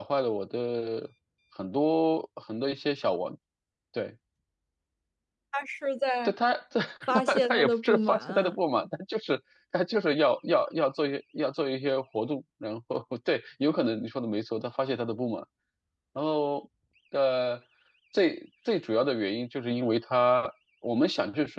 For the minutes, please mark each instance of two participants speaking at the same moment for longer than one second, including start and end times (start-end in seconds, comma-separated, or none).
7.3-8.6